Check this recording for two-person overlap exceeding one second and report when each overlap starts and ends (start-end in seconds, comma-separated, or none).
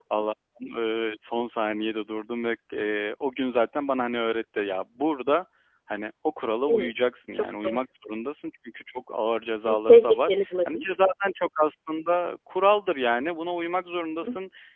9.7-10.9